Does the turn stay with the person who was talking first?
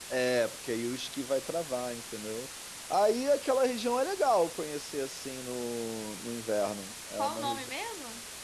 No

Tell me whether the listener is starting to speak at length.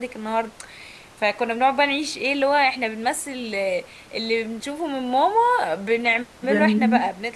No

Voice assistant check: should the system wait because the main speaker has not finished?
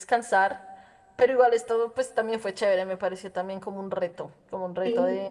Yes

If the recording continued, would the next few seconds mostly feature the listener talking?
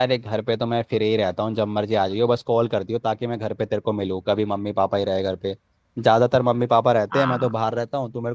No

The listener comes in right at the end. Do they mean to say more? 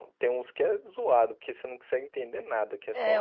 Yes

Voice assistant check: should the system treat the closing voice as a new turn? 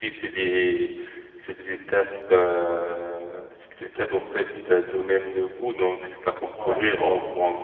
No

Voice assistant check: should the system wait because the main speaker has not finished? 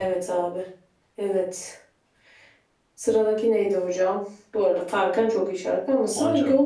Yes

